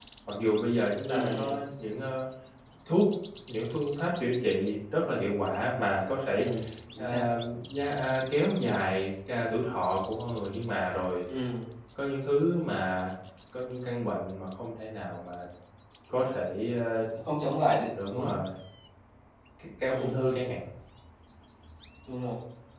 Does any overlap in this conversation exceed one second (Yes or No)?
No